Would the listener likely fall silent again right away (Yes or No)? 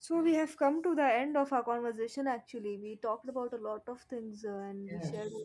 No